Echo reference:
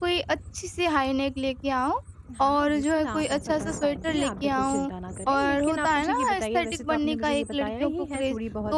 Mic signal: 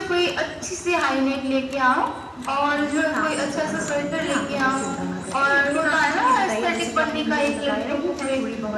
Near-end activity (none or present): none